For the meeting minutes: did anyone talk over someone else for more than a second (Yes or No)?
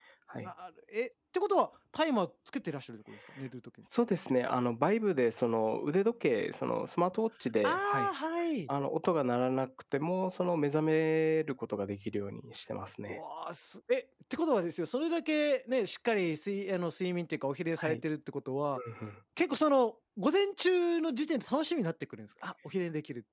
No